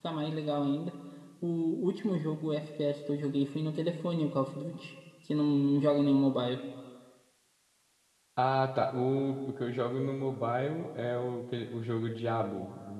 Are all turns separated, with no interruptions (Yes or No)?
Yes